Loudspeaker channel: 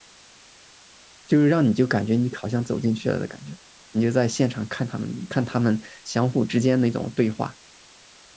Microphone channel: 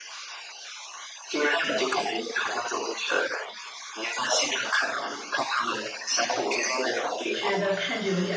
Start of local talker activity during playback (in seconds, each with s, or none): 7.3 s